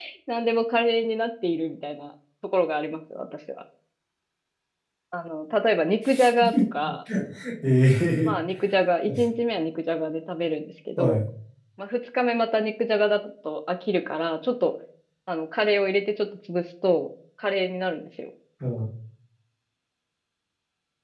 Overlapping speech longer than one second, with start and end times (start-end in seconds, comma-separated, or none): none